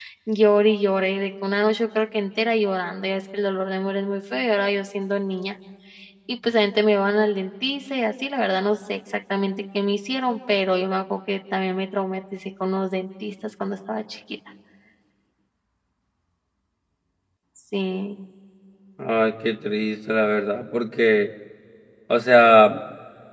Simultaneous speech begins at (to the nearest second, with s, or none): none